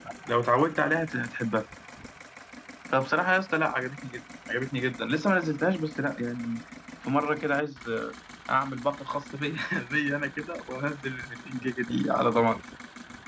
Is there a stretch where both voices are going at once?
No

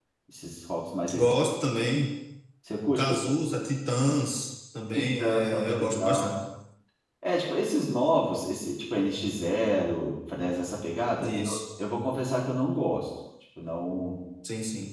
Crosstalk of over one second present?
Yes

